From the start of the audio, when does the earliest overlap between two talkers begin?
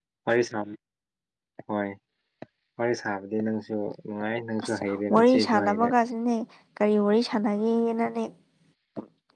4.6 s

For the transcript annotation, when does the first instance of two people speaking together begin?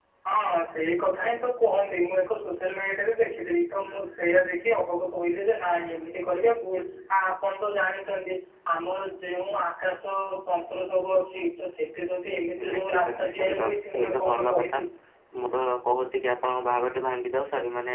12.6 s

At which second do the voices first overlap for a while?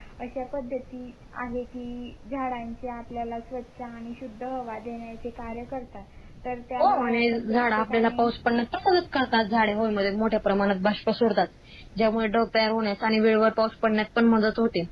6.8 s

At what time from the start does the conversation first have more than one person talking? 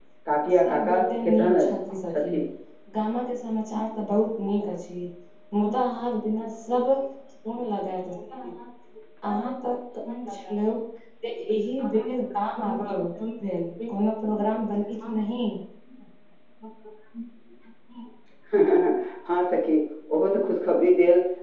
0.5 s

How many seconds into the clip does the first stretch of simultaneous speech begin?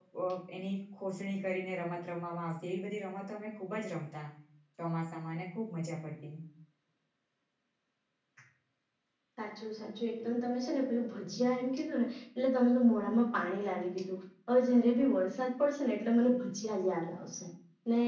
none

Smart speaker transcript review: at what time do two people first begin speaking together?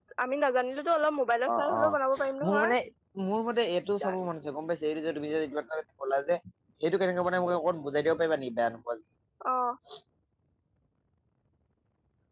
1.5 s

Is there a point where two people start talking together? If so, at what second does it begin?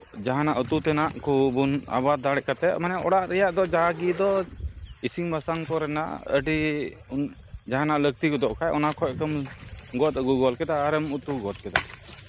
none

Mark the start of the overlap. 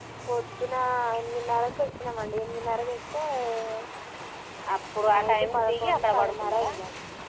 5.1 s

